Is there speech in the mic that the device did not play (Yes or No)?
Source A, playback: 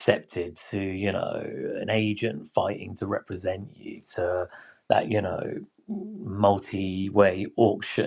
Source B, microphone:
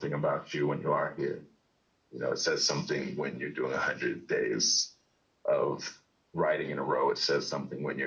Yes